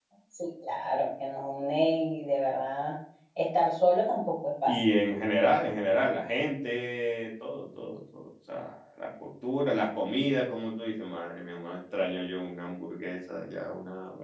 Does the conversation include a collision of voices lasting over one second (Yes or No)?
No